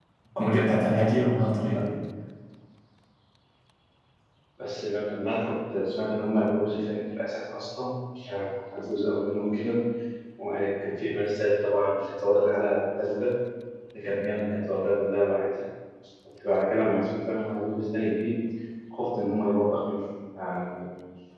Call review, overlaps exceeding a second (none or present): none